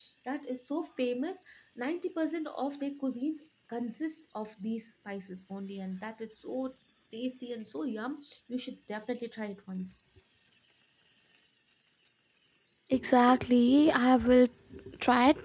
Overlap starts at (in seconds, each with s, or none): none